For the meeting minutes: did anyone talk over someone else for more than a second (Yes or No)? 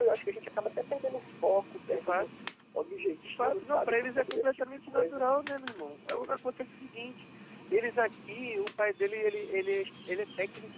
Yes